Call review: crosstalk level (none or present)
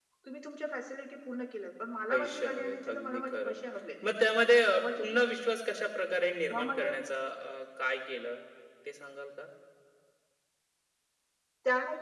present